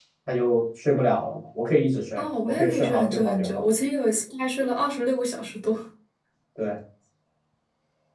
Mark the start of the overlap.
2 s

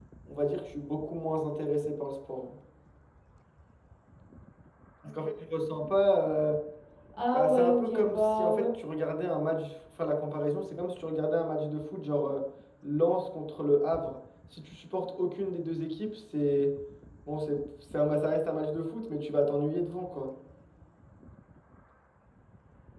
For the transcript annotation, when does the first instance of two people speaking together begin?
7 s

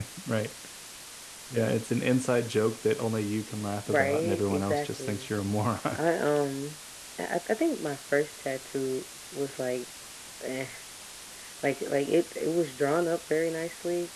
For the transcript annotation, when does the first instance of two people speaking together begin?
4 s

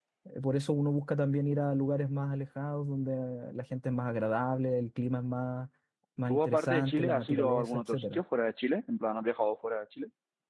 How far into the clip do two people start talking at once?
6 s

